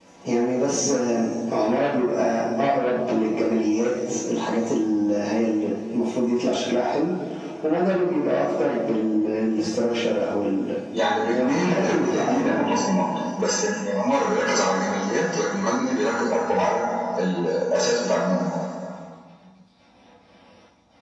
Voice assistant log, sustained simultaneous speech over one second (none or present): present